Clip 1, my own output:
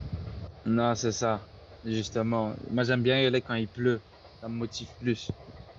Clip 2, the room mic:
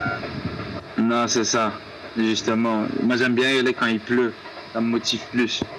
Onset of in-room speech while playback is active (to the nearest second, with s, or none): none